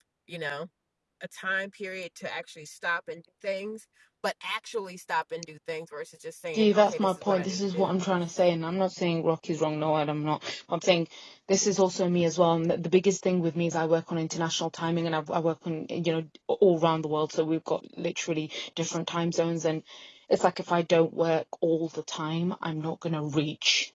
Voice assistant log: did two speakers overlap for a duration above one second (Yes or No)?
Yes